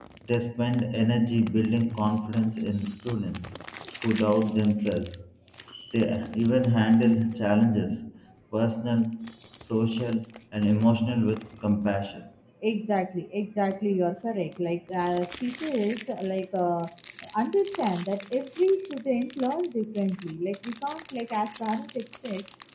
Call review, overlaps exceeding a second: none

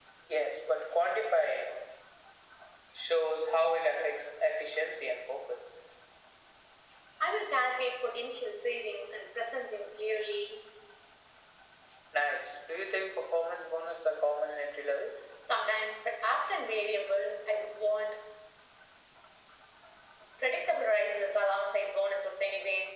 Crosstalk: none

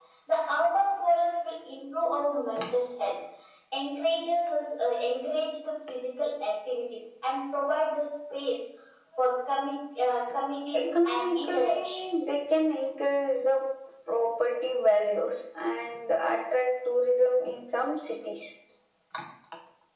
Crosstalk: present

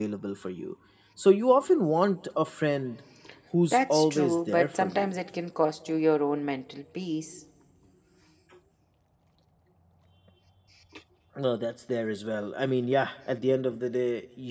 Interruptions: present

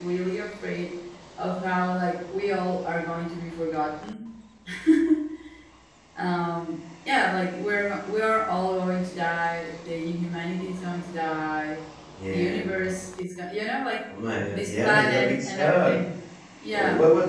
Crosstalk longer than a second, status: present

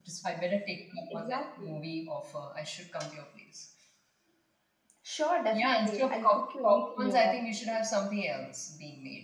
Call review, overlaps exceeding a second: present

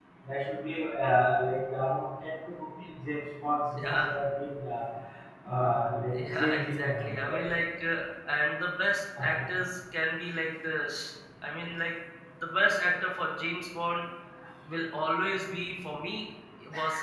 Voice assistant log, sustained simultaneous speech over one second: present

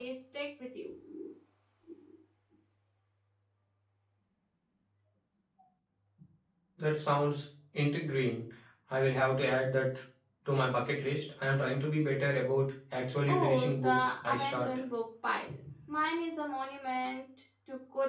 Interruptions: present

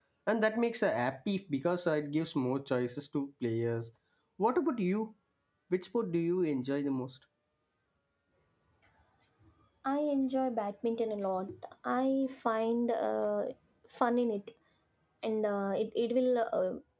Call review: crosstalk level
none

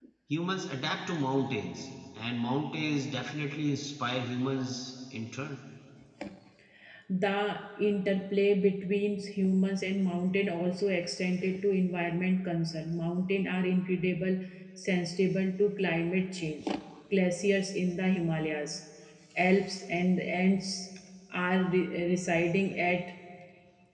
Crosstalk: none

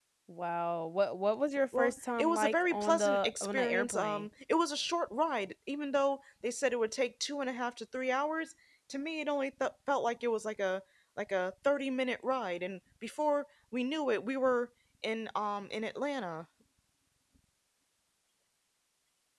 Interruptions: present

